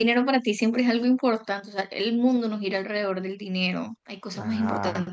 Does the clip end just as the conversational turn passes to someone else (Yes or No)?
Yes